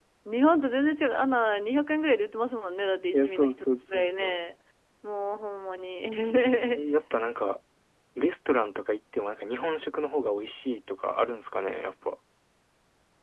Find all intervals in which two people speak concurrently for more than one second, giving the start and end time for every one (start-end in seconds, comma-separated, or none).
3.1-4.3